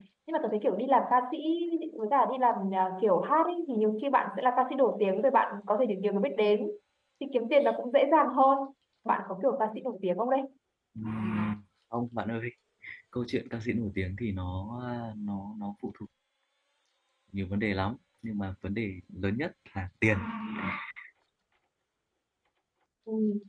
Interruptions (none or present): none